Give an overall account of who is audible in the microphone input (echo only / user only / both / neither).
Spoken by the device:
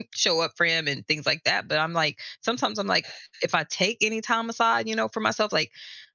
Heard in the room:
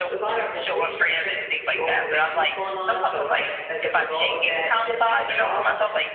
both